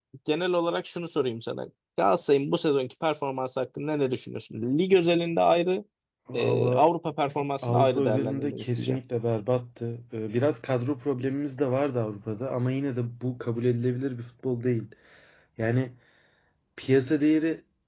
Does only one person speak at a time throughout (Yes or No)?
No